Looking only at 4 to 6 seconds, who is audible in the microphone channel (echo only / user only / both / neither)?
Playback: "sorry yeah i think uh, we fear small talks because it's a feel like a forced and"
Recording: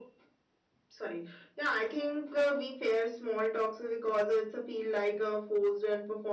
echo only